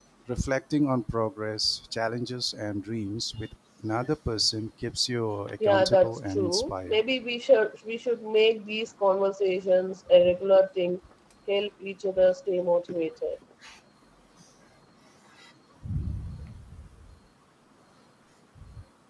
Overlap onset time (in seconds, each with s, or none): 5.6 s